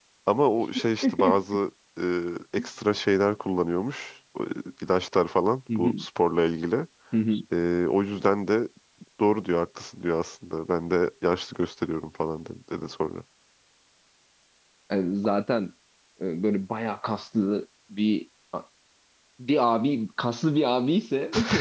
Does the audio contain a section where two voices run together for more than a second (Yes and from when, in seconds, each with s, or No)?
No